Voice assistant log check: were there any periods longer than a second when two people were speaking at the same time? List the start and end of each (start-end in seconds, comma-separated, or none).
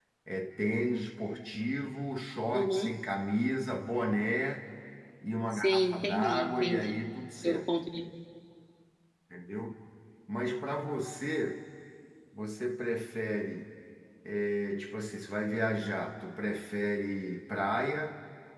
5.5-6.9